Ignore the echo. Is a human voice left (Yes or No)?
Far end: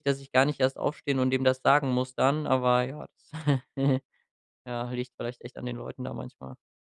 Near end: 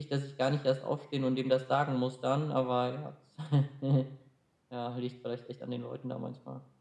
No